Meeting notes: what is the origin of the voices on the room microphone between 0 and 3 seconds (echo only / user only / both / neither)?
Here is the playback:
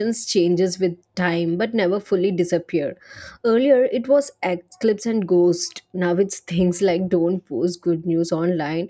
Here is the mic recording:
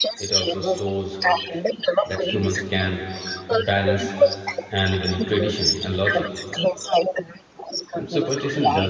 both